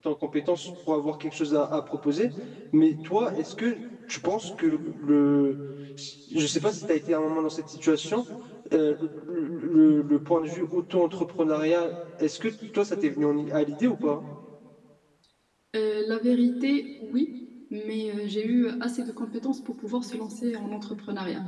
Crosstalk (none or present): none